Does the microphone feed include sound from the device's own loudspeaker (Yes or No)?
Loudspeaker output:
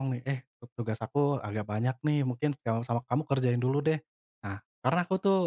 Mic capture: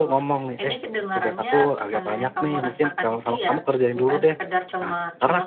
Yes